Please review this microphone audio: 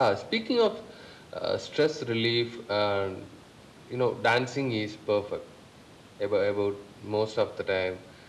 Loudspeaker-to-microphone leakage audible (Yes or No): No